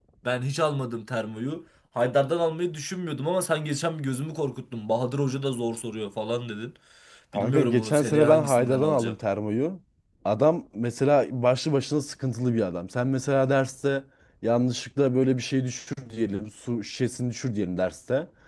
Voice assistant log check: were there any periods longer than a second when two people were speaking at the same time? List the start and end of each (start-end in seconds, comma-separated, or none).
7.3-9.2